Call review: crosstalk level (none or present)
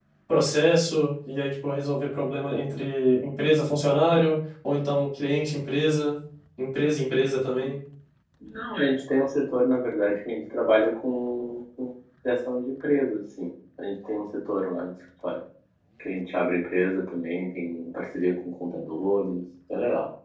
none